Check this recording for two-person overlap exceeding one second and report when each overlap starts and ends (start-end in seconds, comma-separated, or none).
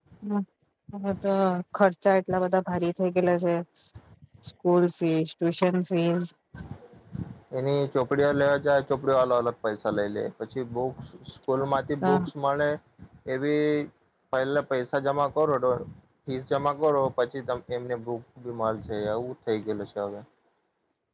none